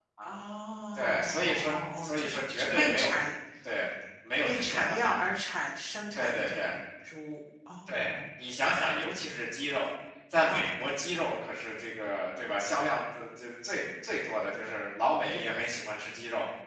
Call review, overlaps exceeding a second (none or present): present